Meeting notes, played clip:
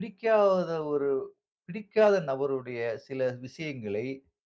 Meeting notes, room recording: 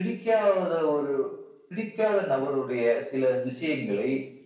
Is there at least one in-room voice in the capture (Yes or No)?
No